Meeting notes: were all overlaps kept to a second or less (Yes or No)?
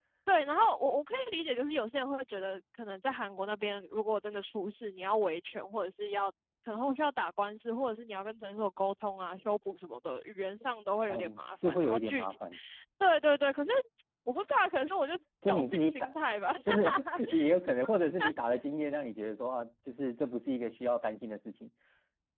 No